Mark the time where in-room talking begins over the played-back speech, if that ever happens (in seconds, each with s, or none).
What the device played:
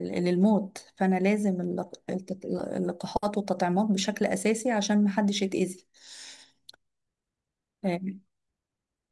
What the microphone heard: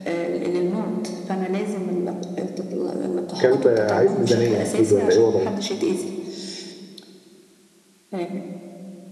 3.4 s